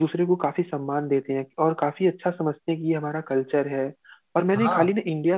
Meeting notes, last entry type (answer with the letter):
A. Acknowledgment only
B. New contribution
A